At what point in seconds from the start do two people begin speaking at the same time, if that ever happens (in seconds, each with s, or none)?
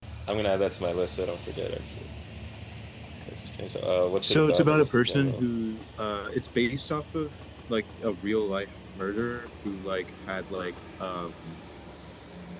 4.2 s